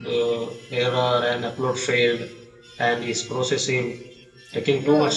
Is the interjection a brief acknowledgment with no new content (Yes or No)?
No